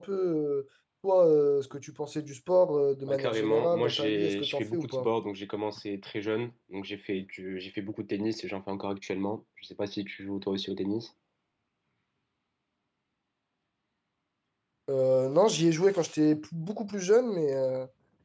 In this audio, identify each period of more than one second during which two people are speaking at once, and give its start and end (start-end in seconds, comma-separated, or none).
3.1-5.1